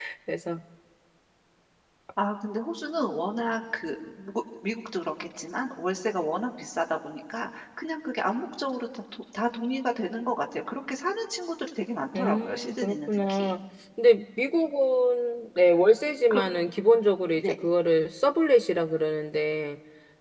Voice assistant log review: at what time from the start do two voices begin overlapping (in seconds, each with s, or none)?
12.2 s